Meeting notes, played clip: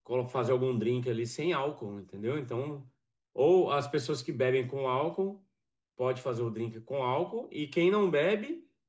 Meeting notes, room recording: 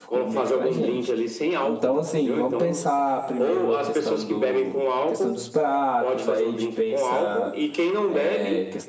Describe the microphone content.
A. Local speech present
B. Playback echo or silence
A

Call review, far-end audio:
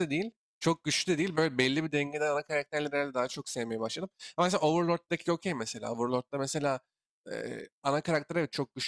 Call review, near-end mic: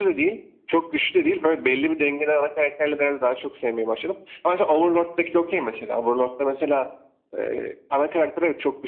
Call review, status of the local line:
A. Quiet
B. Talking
A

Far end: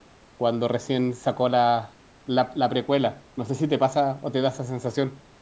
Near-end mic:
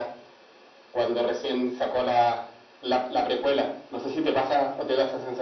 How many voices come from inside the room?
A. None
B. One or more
A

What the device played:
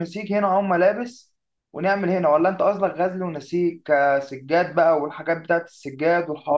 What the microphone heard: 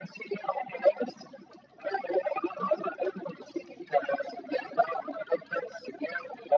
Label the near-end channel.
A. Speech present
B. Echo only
B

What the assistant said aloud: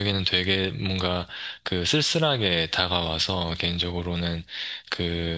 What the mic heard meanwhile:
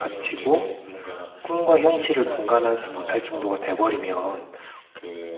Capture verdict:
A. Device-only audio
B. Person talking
B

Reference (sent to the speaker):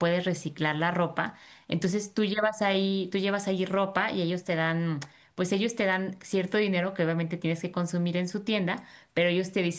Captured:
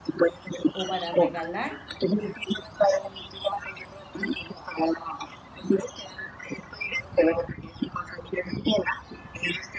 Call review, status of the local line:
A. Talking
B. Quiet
A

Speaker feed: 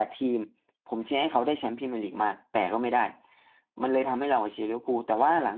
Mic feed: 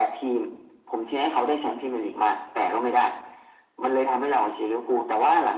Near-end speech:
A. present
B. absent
B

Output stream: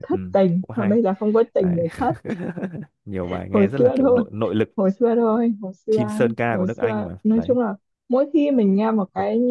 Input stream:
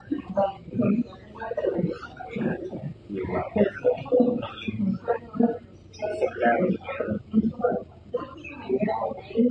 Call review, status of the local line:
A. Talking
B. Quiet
B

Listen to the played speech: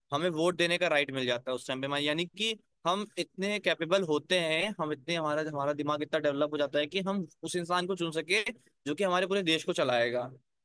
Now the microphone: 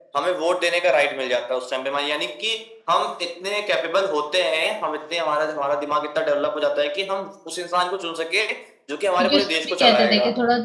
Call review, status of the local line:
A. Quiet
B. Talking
B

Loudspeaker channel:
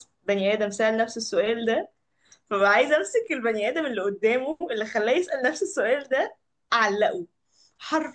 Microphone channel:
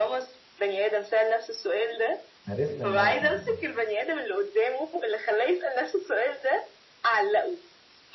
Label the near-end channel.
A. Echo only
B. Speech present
B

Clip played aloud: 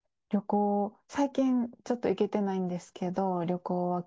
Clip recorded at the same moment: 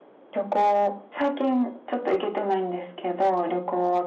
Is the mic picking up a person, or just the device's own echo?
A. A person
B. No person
B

